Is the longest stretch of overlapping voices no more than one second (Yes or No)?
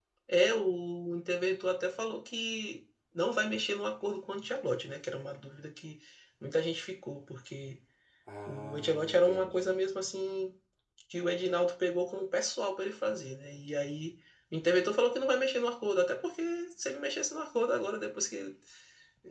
No